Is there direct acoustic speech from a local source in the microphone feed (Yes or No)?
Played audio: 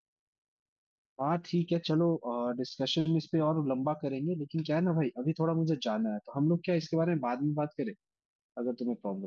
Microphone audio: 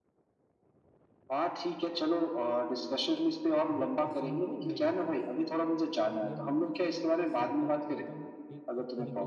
Yes